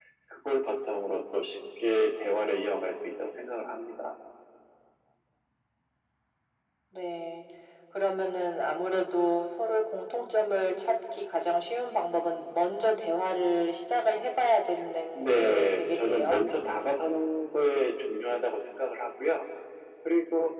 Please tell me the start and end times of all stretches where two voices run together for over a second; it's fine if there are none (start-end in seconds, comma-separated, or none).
15.1-16.4